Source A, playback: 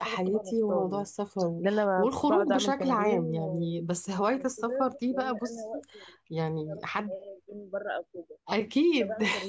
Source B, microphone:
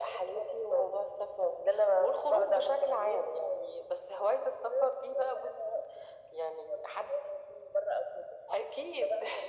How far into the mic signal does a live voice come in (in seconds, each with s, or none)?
none